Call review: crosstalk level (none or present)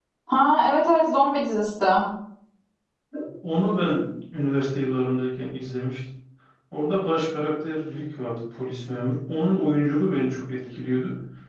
none